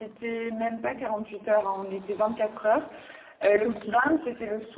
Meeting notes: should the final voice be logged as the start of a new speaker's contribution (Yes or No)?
No